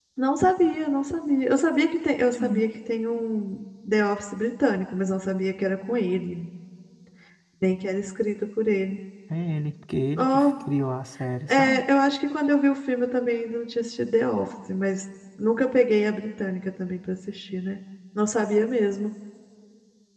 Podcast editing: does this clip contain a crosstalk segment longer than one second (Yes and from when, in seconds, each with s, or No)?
No